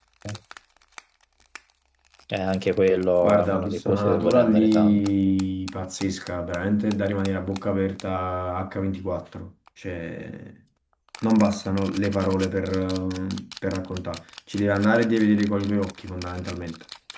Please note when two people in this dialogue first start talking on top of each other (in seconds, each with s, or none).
3.2 s